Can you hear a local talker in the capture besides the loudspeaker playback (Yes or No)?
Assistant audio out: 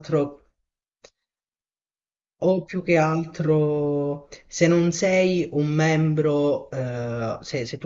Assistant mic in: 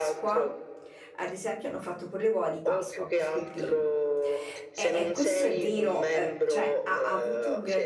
Yes